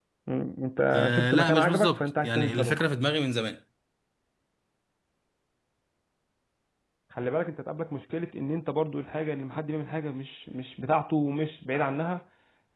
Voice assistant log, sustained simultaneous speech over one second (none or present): present